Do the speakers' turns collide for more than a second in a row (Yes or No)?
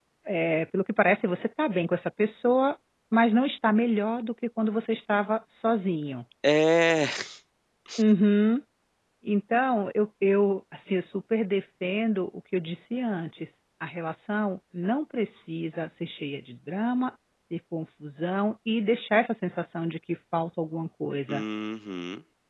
No